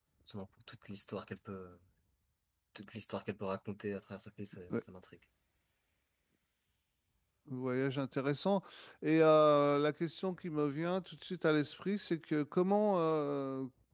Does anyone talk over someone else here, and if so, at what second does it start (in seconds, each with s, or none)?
none